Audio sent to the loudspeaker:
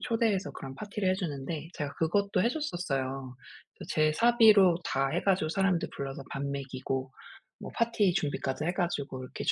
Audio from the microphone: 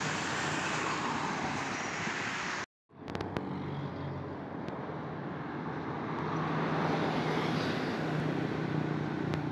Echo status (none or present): none